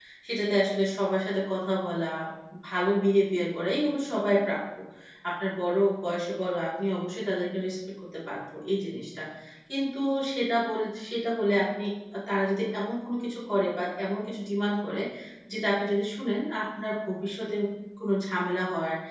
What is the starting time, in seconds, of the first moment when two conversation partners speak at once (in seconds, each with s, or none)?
none